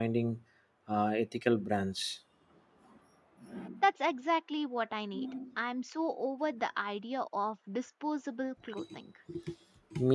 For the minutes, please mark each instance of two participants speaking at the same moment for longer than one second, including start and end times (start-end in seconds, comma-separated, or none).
none